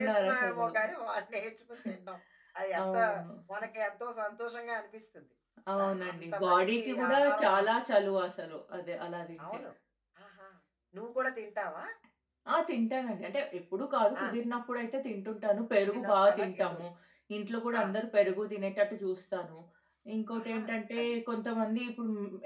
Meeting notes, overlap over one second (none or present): present